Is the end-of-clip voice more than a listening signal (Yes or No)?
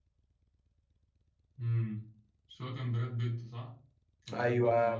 Yes